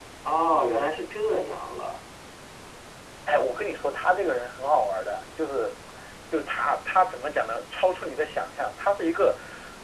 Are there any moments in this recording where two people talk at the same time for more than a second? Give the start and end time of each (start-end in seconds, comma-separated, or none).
none